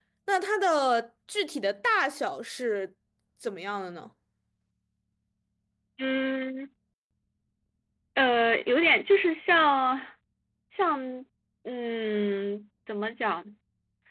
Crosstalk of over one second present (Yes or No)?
No